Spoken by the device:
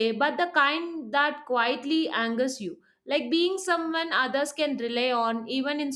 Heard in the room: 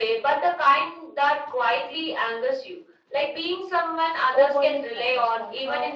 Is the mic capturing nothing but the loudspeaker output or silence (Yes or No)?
No